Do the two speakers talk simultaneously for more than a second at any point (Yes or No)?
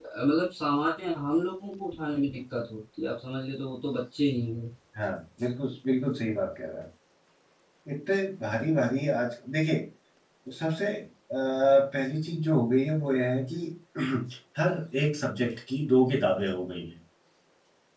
No